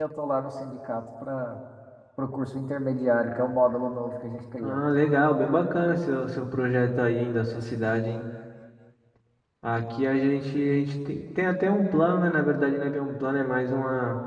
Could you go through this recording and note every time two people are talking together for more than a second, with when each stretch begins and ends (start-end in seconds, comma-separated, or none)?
none